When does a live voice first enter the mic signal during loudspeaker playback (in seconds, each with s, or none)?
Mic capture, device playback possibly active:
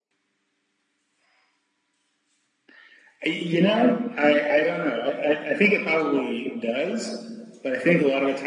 none